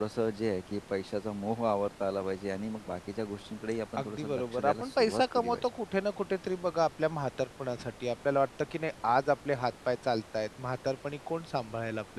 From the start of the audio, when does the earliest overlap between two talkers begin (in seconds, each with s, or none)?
4.0 s